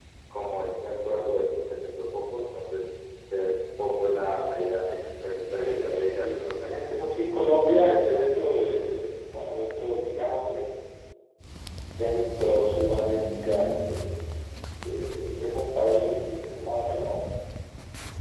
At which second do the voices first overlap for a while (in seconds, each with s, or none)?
5.6 s